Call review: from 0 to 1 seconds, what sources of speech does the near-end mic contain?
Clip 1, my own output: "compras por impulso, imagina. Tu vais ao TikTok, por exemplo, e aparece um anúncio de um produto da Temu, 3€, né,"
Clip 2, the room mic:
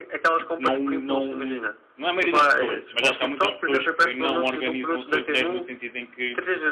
both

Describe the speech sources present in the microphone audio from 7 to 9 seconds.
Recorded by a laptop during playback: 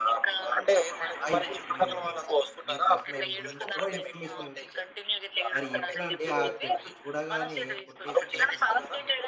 both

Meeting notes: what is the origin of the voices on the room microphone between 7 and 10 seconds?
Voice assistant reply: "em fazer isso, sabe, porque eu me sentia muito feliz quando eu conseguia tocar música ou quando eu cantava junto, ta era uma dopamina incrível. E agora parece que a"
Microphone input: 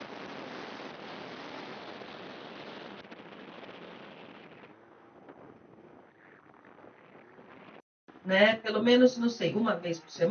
user only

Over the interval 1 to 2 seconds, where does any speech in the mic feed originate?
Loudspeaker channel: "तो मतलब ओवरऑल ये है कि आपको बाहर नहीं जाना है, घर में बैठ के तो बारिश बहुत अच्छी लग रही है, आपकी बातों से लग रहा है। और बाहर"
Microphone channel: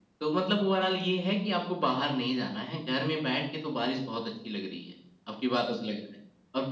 echo only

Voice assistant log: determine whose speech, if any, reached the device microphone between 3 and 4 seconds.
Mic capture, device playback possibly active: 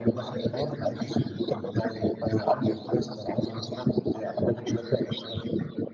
echo only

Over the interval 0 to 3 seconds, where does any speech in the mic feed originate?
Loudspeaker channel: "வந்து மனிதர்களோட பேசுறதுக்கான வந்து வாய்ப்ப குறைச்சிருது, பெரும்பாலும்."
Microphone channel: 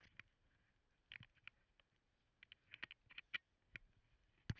neither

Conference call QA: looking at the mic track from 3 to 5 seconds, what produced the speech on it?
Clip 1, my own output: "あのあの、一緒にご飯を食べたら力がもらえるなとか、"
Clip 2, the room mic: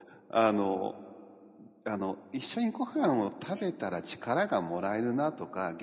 both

